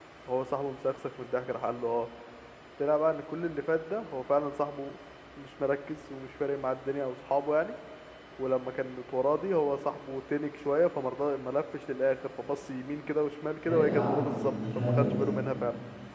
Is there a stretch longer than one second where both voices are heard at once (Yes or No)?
Yes